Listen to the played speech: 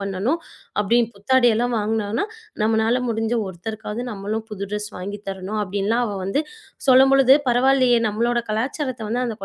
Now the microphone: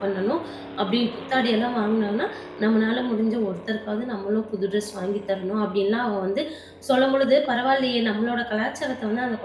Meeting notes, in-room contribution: none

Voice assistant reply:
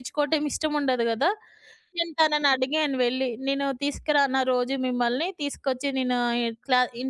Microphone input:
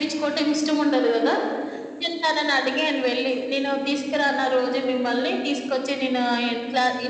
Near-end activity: none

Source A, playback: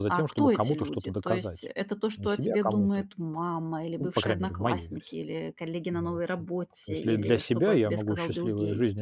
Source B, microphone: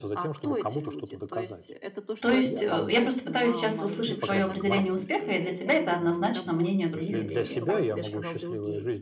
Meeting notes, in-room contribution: present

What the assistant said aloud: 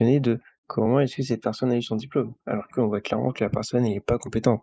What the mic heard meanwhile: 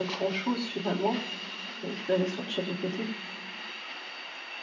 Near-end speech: present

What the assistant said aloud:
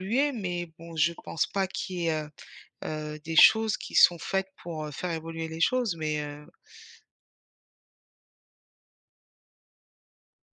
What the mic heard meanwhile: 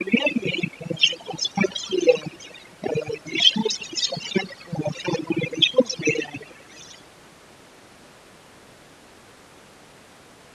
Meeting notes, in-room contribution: none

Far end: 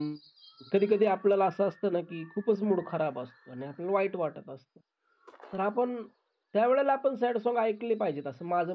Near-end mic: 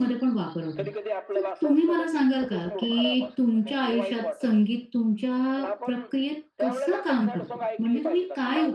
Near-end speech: present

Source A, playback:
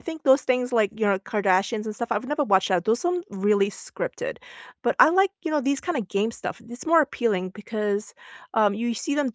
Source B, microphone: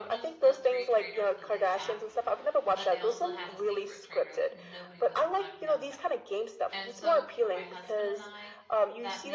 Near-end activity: present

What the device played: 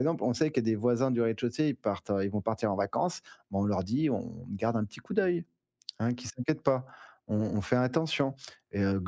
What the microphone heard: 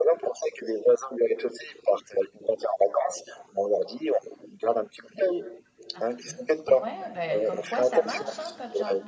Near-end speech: present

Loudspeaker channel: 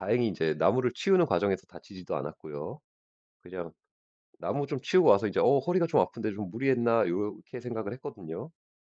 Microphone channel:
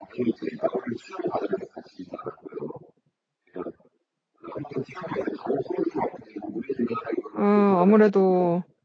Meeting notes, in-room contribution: present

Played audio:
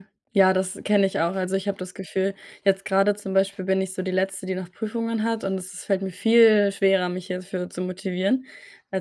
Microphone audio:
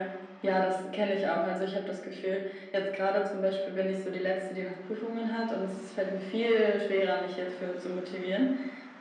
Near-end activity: none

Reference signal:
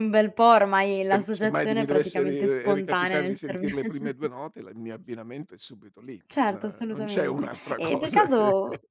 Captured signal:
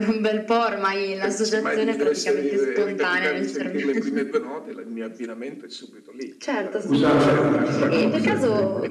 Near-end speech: present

